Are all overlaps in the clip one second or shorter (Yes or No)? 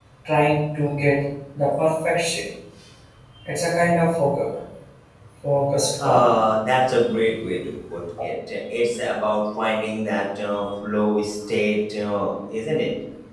Yes